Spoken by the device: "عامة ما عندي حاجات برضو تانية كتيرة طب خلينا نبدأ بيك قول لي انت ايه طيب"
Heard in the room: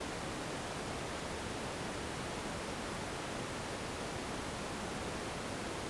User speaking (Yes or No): No